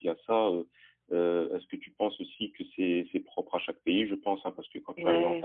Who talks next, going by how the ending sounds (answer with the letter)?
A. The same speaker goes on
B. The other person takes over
A